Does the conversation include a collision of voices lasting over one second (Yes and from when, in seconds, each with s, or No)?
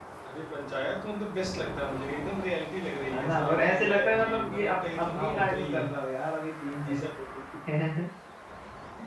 Yes, from 3.1 s